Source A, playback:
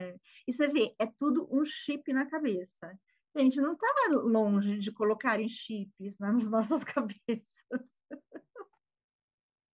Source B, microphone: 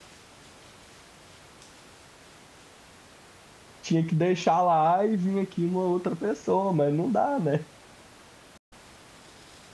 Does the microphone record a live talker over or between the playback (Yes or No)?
Yes